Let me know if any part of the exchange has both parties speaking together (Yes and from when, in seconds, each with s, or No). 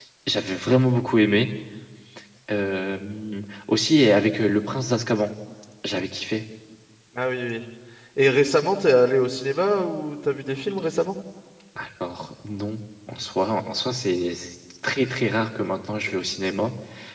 No